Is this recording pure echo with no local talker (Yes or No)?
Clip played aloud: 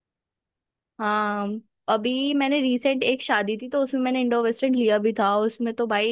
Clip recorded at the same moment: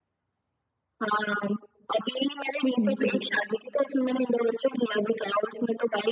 No